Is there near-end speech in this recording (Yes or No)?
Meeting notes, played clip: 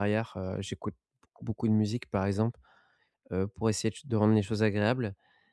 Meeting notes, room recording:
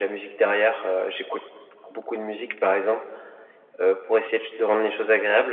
No